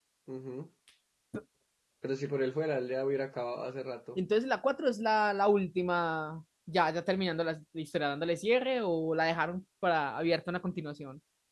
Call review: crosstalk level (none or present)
none